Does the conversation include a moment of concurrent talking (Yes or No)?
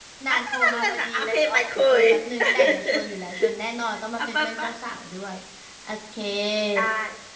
Yes